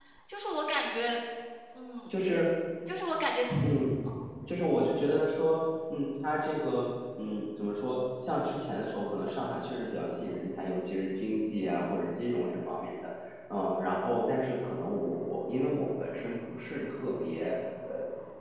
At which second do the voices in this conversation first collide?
none

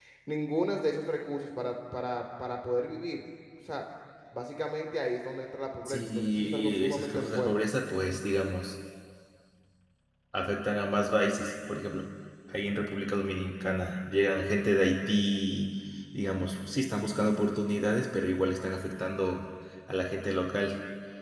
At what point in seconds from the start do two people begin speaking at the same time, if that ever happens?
5.8 s

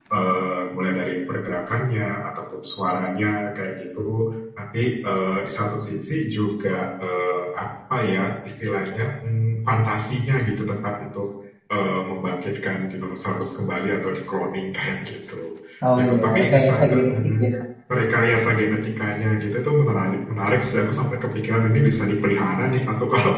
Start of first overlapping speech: 16.0 s

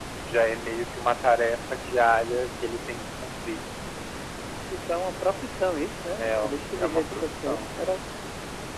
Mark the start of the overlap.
6.2 s

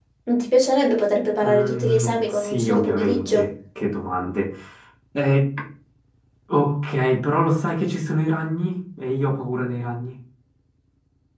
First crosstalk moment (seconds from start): 1.4 s

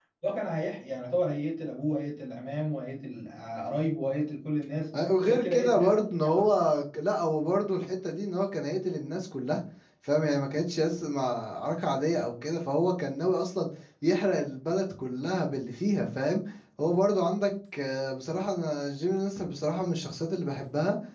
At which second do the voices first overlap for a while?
5.2 s

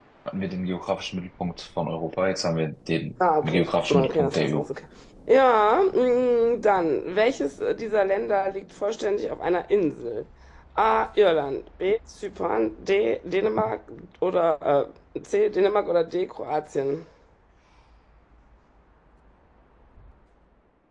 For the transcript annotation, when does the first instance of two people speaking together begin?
3.4 s

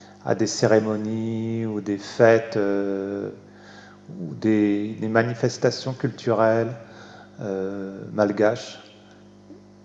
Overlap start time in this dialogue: none

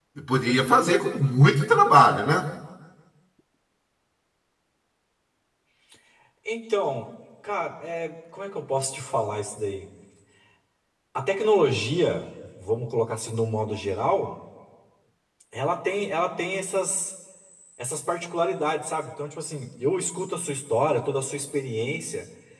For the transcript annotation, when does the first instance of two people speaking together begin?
none

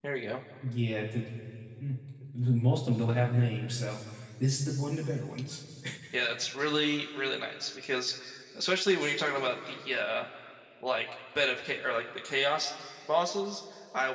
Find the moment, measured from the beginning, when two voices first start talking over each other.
none

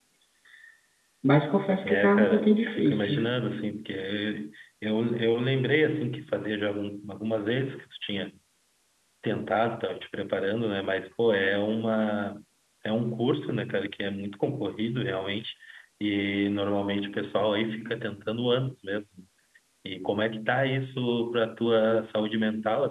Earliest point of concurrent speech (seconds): 1.8 s

